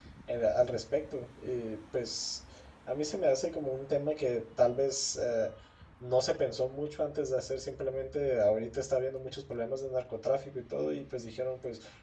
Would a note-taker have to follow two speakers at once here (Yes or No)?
No